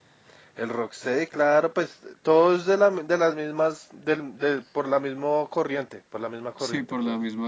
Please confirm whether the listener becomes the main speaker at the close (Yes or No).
Yes